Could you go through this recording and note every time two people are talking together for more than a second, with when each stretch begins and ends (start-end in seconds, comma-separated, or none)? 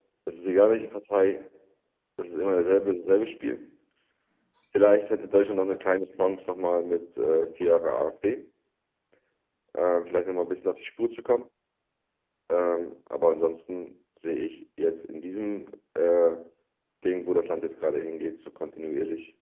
none